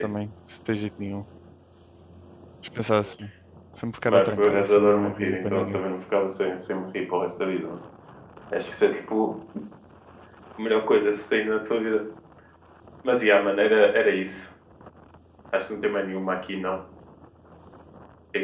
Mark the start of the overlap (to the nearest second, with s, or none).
4 s